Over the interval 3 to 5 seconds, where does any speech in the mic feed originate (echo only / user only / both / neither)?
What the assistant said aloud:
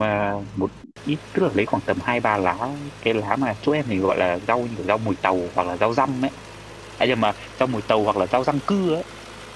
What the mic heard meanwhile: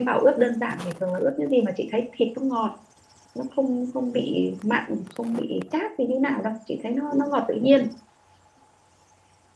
user only